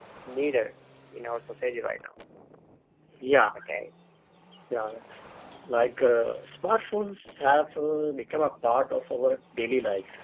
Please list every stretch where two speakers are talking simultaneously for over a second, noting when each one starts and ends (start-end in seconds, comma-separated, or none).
none